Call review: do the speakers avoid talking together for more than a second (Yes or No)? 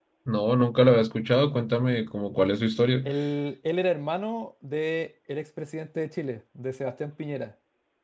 Yes